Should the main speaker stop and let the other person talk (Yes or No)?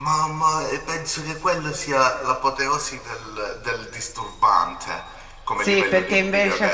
Yes